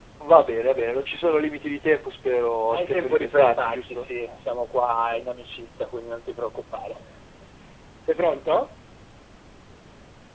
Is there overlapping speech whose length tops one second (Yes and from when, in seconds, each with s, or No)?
Yes, from 2.7 s